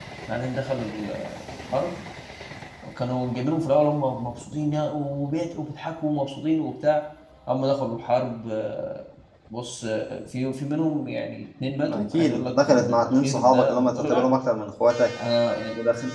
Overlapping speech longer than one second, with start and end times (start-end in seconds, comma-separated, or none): 11.9-14.3